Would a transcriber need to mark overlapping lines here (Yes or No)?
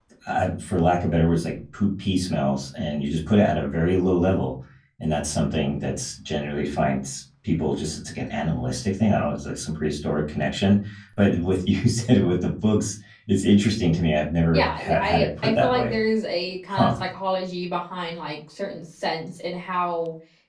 Yes